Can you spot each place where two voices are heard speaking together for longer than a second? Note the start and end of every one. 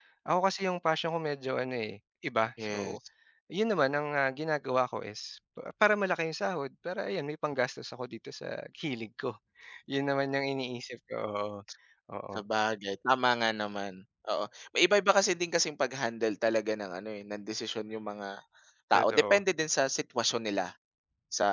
none

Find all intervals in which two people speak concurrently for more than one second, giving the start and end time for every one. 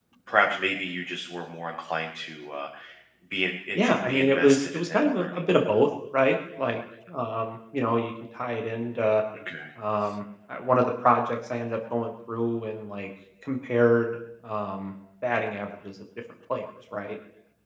3.8-5.4

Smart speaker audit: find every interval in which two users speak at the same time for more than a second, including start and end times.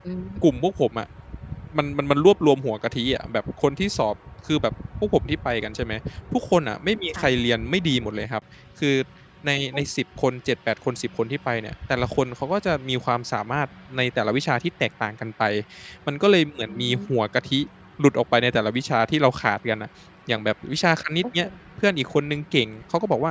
none

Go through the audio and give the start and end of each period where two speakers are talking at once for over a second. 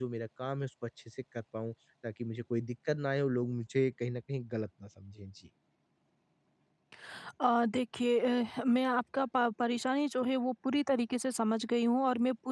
none

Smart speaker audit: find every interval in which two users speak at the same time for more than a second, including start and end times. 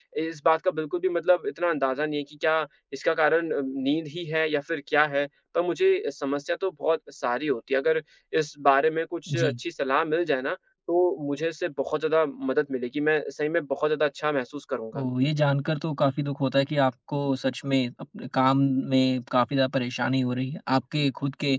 none

